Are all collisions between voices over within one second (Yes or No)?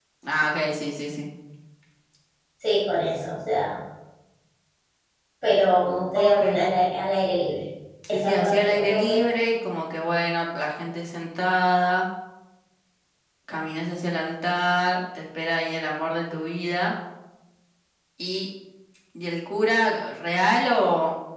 No